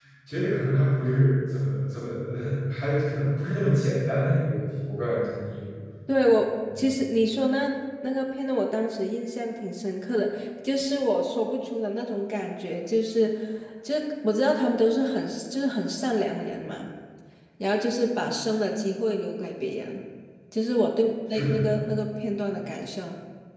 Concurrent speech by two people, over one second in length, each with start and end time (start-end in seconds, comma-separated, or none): none